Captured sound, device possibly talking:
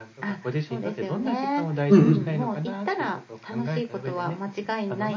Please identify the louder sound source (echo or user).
user